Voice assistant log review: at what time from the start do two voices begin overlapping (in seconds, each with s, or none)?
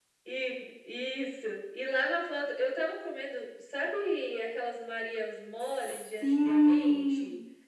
5.6 s